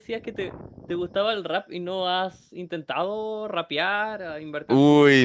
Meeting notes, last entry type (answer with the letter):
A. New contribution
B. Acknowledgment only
A